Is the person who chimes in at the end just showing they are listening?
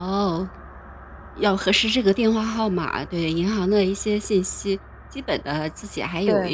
Yes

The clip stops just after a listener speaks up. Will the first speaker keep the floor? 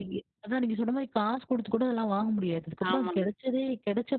Yes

